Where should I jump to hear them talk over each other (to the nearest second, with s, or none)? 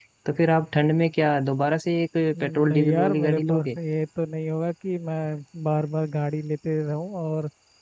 2 s